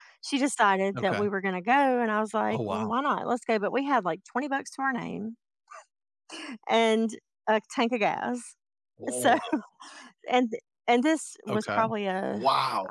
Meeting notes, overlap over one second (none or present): none